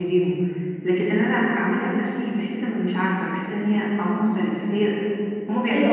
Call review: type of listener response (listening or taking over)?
taking over